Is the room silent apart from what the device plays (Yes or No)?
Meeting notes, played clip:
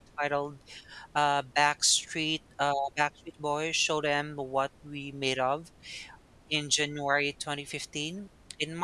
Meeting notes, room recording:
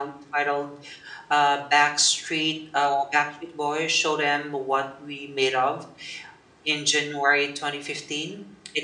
Yes